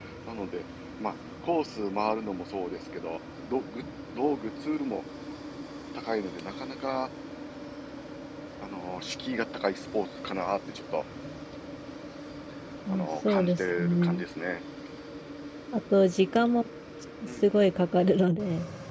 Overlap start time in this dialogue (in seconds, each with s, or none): 12.9 s